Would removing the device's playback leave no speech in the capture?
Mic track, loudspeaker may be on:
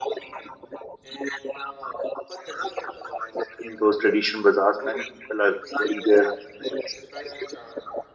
No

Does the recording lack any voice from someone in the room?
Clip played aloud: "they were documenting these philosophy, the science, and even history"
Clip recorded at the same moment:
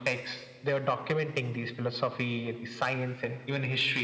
Yes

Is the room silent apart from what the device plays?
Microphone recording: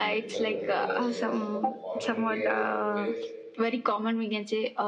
No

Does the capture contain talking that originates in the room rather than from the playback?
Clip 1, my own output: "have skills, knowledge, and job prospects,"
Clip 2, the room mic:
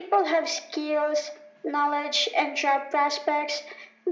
No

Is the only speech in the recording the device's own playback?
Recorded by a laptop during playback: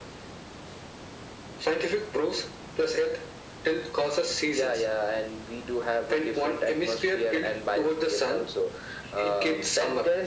Yes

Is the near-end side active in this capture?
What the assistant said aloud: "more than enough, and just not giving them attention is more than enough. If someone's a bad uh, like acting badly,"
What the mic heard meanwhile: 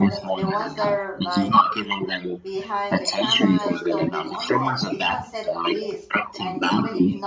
Yes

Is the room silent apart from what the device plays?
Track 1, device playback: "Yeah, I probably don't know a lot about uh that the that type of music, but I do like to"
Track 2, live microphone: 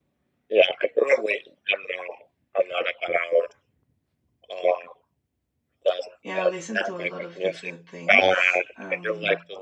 No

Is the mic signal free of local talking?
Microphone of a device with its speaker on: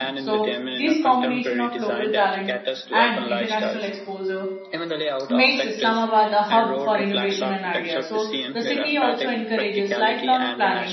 No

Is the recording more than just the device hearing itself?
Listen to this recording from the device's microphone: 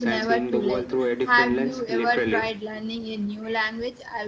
Yes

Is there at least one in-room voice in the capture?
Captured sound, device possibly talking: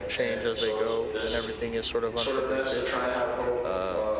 Yes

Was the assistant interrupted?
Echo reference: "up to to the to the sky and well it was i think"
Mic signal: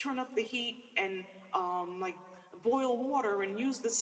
Yes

